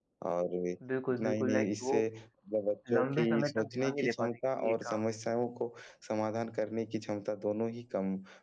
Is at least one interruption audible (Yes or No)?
Yes